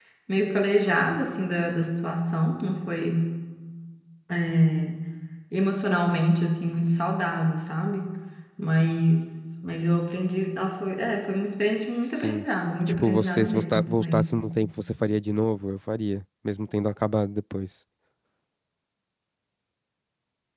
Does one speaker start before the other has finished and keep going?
Yes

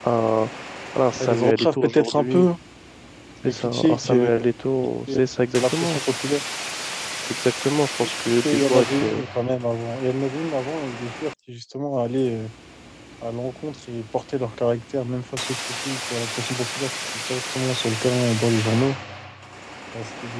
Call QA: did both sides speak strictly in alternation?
No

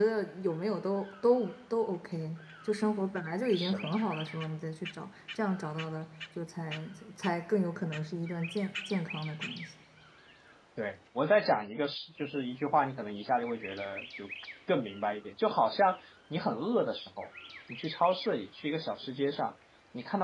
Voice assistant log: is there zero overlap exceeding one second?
Yes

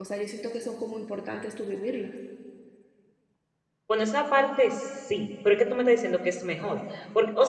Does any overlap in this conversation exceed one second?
No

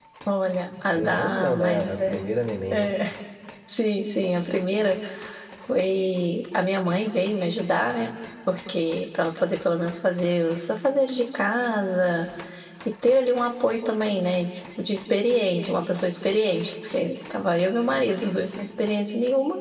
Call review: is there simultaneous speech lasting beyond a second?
Yes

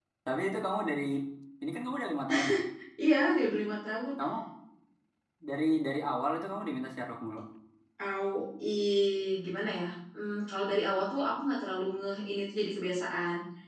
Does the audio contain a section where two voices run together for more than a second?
No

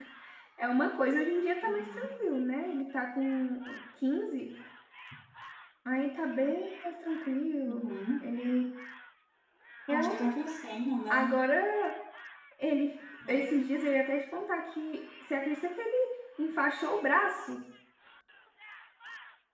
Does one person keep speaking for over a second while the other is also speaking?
No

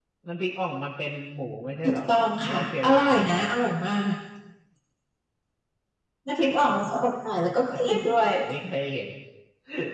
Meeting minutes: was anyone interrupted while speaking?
Yes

